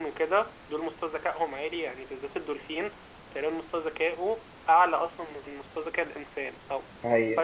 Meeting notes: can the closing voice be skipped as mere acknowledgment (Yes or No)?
Yes